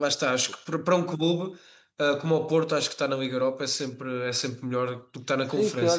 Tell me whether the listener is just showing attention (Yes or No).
No